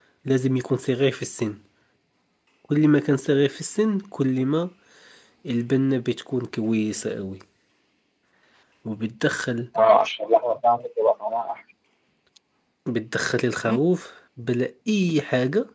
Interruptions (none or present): none